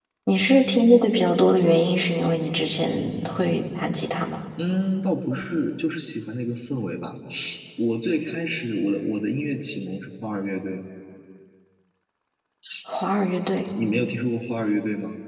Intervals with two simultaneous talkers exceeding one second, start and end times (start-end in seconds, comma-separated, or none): none